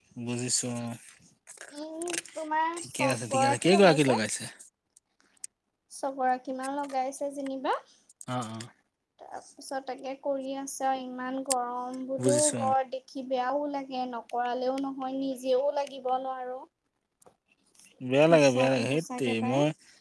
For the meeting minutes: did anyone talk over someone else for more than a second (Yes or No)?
Yes